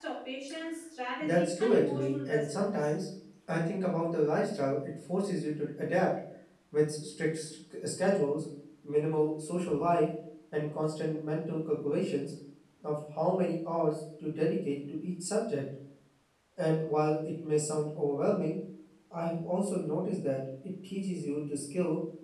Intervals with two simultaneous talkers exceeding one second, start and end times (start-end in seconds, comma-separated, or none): 1.2-2.9